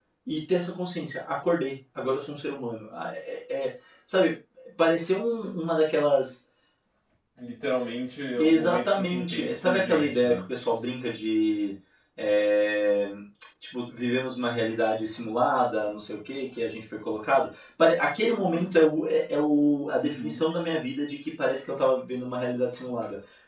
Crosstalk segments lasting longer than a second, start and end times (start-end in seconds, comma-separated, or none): 8.4-10.4